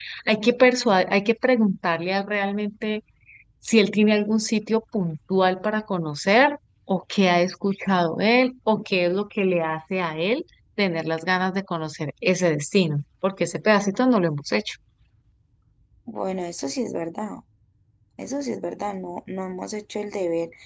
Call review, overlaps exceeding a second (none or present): none